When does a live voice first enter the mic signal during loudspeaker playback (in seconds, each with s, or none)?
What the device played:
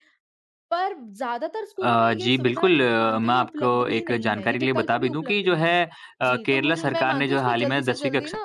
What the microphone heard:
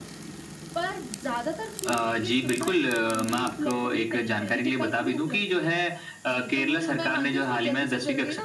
none